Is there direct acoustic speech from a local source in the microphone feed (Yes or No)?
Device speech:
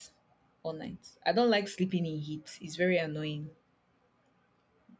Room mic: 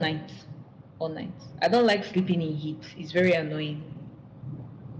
No